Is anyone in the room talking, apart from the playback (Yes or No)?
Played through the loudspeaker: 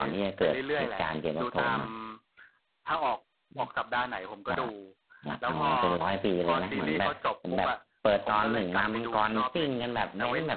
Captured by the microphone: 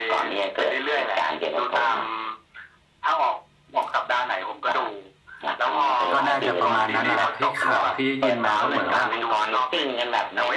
Yes